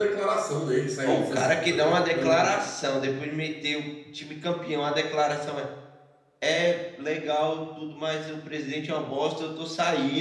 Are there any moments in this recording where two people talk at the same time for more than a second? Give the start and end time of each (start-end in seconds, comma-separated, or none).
1.1-2.5